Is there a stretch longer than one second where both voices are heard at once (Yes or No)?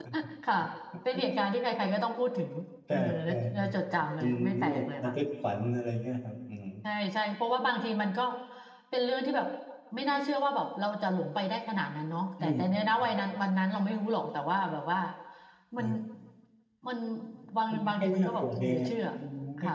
Yes